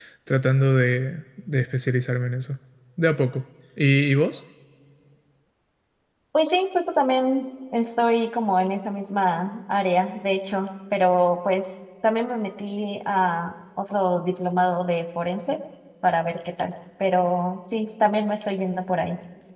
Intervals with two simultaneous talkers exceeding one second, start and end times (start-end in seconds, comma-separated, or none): none